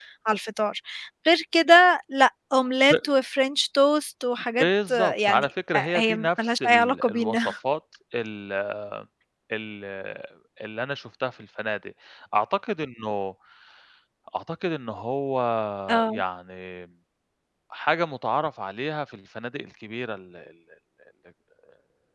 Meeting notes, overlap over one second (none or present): present